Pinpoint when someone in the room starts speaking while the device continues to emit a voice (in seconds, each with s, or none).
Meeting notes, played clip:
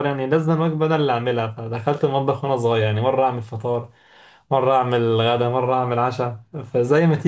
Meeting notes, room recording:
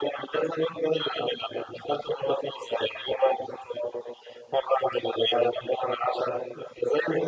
none